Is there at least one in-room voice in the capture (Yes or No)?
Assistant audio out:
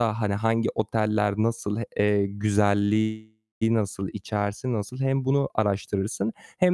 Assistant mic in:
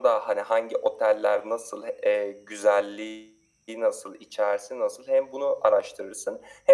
No